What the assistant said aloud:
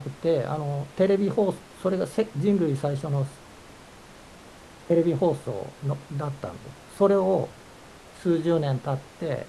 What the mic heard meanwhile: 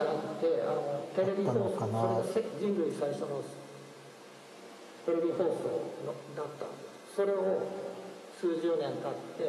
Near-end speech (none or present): present